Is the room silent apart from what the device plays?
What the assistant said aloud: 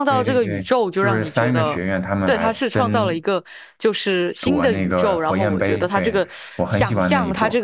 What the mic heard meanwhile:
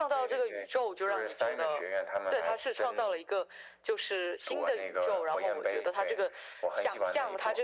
Yes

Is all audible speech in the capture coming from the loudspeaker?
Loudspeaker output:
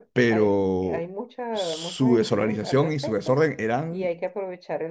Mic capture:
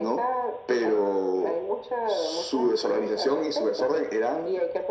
Yes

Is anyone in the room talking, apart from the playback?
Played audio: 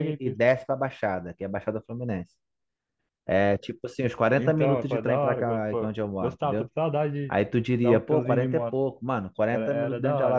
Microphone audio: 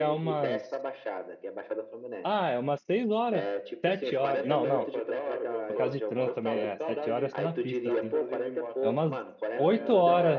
Yes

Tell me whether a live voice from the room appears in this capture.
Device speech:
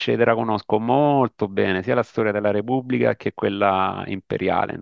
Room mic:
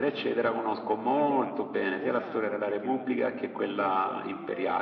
Yes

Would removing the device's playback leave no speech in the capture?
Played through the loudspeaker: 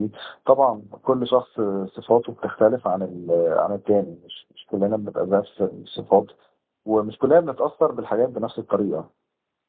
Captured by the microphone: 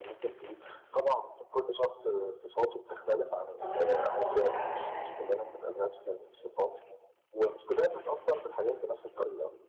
No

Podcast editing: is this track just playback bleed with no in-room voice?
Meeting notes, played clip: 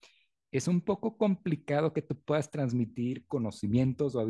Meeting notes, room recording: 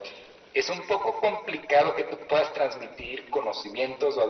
Yes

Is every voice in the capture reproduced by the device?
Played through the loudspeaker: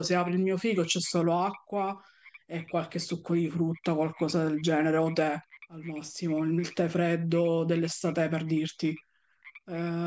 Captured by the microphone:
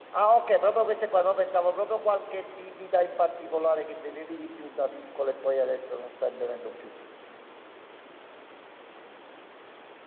No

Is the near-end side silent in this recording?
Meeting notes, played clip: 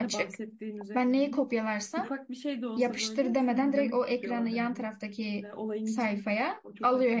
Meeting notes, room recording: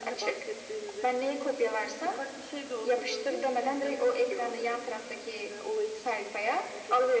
Yes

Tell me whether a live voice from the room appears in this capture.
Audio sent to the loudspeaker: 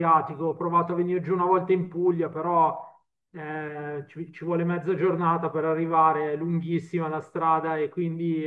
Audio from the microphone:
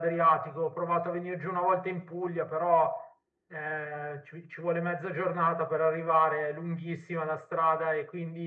No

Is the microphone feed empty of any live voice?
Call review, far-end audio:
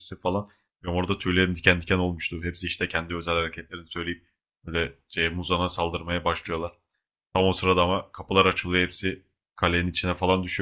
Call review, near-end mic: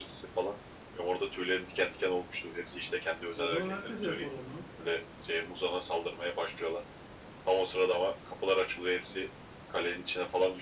No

